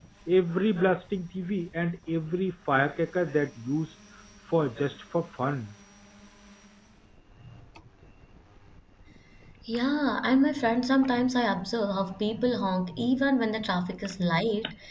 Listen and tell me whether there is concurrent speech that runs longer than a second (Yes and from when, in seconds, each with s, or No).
No